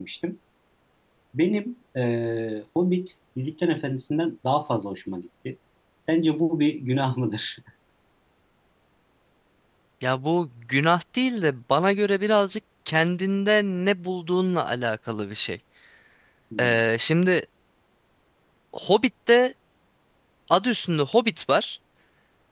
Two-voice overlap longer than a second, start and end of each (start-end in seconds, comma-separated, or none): none